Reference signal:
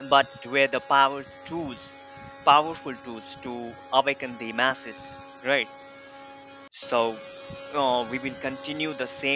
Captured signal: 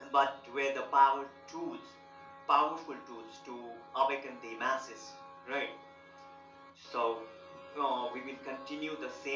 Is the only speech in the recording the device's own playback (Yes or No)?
Yes